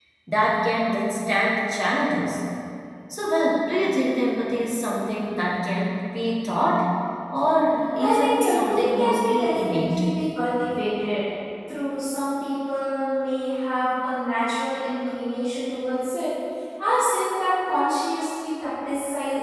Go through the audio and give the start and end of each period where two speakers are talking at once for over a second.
8.0-10.0

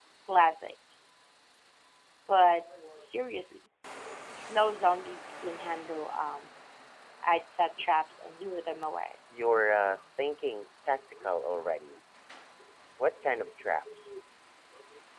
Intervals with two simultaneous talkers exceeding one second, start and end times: none

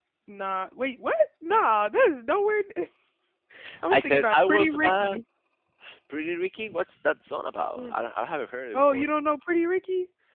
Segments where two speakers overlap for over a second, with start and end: 3.9-5.2

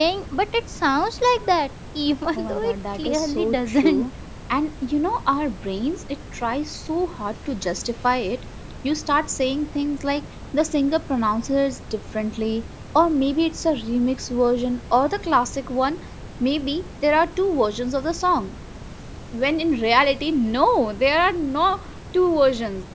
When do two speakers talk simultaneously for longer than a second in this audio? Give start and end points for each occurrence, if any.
2.4-4.1

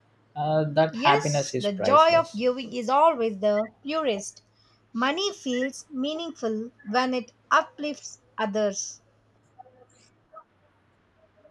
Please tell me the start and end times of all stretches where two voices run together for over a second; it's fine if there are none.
0.9-2.2

